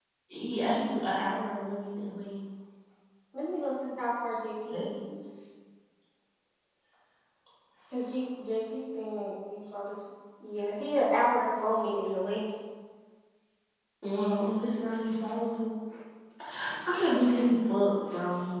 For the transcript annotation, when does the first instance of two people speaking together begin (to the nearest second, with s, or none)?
none